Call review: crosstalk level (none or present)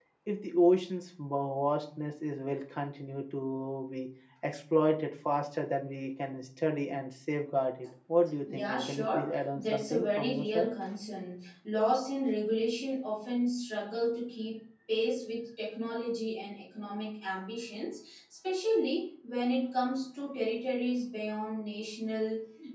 present